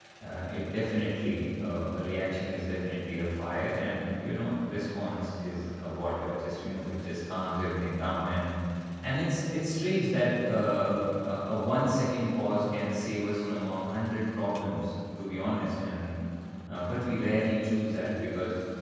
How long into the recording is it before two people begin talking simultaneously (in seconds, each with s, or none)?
none